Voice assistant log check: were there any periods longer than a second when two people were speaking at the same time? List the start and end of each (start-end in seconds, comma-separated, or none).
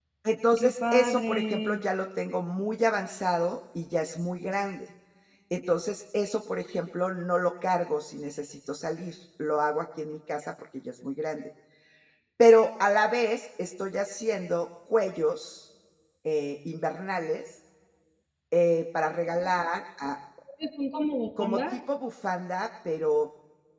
0.6-1.8